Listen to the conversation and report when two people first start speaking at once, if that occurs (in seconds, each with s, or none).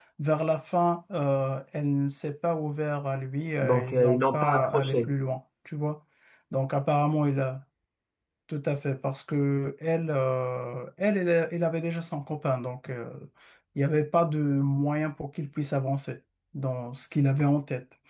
3.6 s